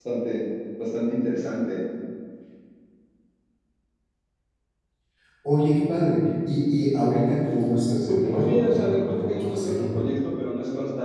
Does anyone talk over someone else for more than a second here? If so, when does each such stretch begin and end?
8.1-10.0

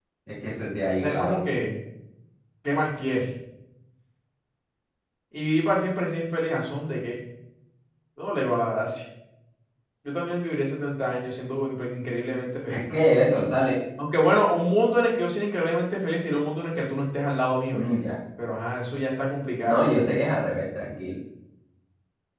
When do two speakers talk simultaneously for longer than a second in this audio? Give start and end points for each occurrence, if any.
none

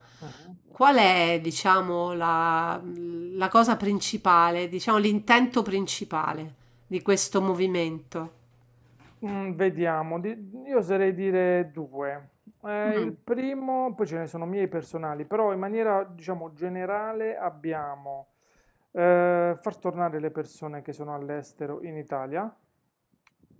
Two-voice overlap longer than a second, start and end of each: none

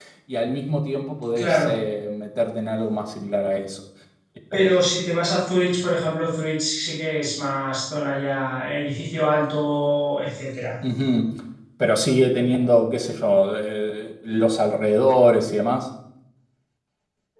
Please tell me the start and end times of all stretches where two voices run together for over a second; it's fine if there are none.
none

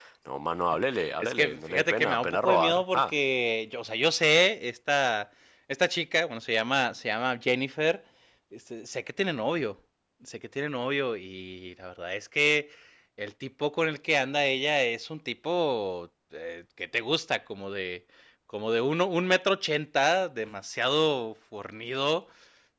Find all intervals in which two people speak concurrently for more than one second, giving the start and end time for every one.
1.2-3.1

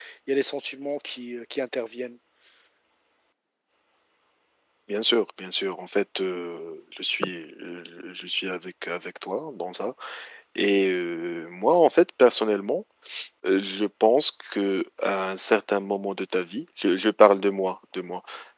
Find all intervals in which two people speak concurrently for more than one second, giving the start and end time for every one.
none

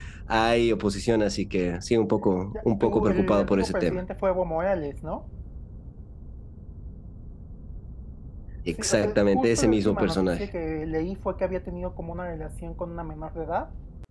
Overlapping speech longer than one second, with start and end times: 2.8-4.0, 8.8-10.4

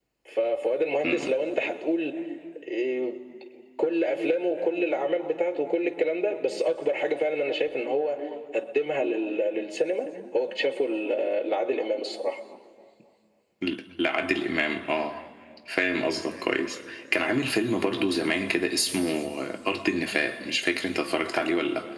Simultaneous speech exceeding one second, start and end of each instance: none

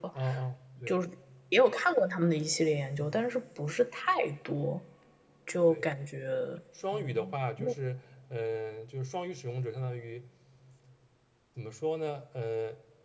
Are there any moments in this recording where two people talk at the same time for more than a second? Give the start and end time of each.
none

